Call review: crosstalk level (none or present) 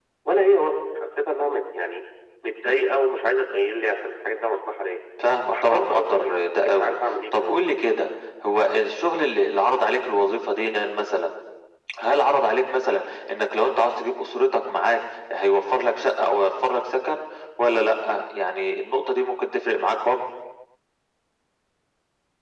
present